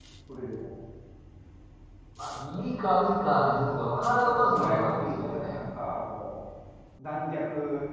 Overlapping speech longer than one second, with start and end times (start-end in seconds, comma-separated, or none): 3.6-5.6